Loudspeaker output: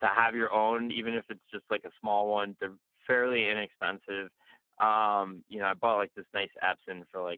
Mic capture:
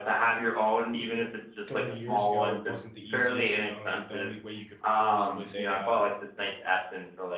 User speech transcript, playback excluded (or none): 30 years ago, it wasn't the easiest. You know, it, the only way you could record is with a uh,